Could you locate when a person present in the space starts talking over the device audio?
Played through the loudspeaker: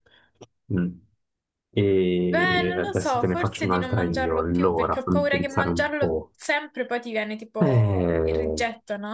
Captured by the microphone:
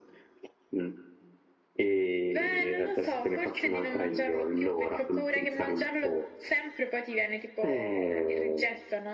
none

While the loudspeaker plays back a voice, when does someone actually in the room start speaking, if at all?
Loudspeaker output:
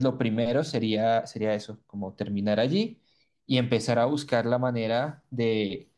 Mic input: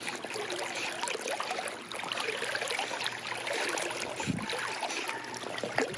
none

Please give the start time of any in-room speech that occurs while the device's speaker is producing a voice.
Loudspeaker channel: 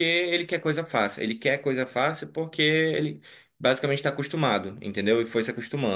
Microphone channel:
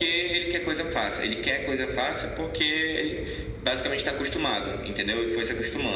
none

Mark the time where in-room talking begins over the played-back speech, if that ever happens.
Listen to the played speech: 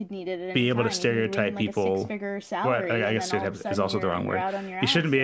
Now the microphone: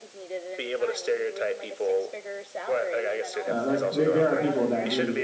3.4 s

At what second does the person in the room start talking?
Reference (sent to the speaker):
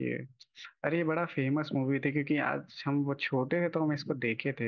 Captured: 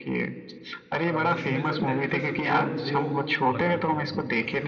1.1 s

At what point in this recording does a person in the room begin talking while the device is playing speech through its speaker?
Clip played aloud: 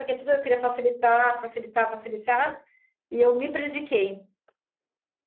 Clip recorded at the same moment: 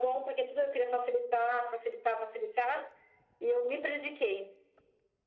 none

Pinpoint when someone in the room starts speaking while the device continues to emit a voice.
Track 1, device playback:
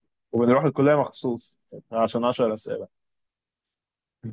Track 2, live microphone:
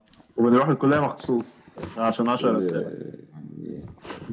2.3 s

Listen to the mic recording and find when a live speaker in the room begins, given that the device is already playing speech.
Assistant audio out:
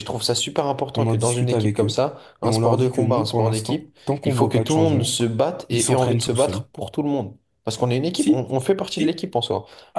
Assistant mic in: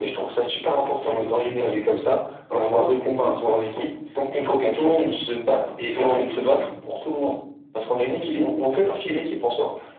none

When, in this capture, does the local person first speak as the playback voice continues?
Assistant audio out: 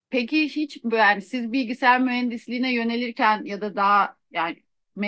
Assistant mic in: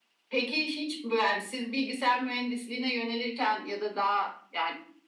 none

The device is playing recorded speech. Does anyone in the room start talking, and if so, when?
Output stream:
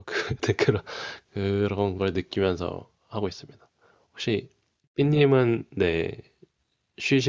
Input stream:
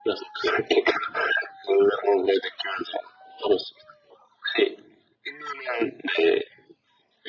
none

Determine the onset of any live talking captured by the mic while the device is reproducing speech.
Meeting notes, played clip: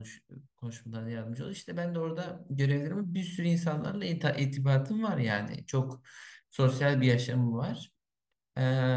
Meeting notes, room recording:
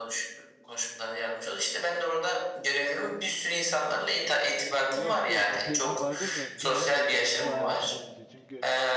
4.8 s

